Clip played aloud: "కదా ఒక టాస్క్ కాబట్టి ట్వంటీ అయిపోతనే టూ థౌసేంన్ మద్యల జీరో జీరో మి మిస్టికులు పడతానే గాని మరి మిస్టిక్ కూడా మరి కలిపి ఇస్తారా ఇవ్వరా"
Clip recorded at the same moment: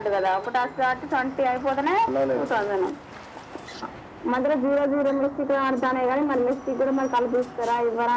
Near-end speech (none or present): present